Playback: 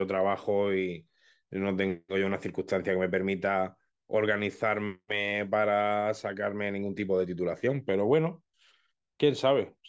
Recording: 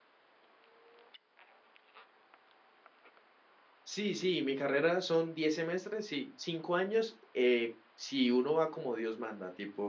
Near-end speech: present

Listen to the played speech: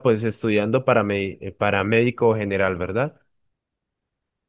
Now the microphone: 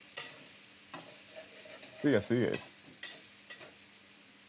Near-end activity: present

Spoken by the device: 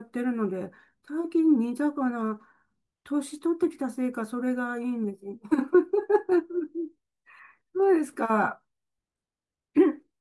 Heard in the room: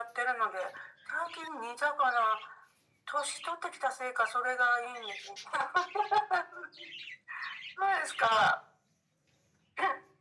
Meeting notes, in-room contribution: none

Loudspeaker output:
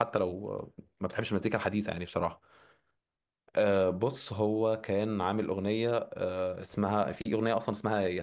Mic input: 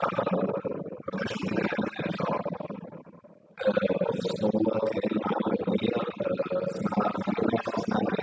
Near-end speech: none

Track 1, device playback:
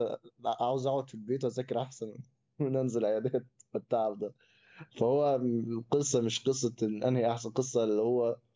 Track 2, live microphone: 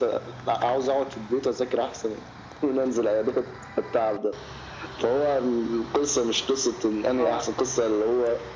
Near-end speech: present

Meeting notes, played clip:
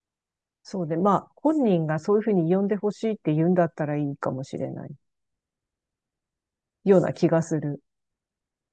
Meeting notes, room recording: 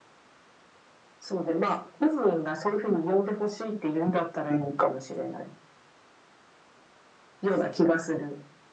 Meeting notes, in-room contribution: none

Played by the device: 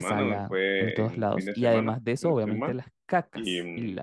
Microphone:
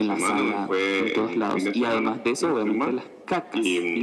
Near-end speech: none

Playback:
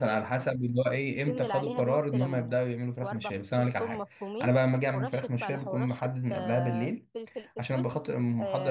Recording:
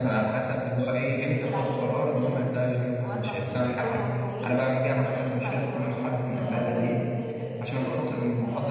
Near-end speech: none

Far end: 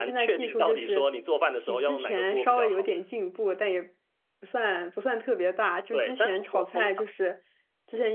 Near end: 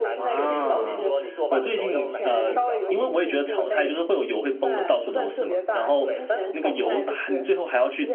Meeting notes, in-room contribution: present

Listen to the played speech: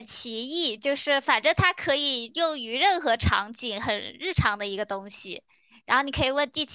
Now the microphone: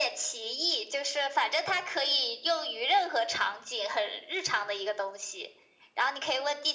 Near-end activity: none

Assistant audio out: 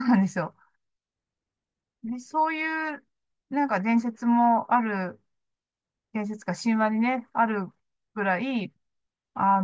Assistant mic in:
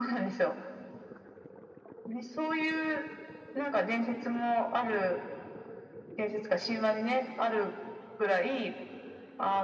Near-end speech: none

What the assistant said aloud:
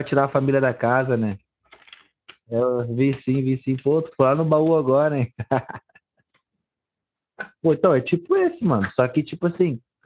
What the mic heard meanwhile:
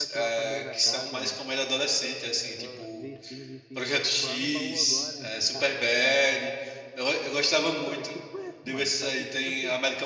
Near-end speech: present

